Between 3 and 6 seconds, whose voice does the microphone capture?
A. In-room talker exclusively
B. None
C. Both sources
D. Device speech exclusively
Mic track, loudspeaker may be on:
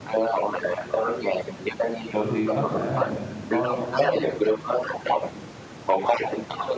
C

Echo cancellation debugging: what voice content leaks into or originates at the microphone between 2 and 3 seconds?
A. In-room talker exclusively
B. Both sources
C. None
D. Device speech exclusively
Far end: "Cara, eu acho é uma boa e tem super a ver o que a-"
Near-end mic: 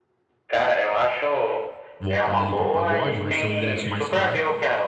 B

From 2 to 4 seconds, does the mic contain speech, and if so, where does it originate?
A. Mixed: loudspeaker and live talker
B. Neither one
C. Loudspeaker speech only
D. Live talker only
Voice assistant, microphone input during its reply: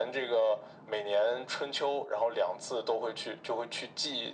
C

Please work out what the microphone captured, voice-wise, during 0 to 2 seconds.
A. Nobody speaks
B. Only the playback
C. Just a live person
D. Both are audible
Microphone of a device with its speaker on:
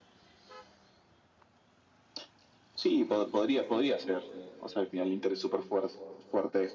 A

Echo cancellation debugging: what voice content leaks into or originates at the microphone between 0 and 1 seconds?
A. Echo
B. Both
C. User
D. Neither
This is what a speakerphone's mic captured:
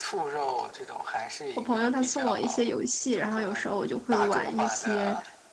A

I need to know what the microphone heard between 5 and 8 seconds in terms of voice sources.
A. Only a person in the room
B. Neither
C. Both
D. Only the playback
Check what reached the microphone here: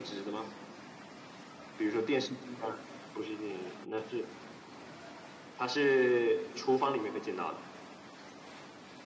D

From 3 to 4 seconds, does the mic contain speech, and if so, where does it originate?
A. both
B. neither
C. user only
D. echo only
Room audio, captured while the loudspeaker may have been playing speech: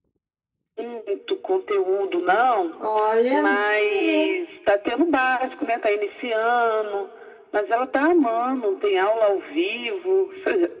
A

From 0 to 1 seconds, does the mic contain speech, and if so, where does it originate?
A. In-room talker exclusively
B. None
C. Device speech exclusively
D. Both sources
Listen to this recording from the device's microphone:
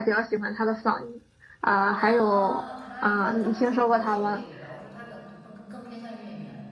C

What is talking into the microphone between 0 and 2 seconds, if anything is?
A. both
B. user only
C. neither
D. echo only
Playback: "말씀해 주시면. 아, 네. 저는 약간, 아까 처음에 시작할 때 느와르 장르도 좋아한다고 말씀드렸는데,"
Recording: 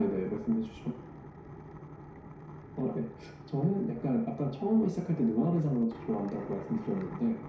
D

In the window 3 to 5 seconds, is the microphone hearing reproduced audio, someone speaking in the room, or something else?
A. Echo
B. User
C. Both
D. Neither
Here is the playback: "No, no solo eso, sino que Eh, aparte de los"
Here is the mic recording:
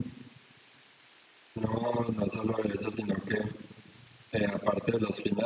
A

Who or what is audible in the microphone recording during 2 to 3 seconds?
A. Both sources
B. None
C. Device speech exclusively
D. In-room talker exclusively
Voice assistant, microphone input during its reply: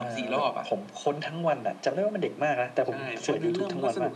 C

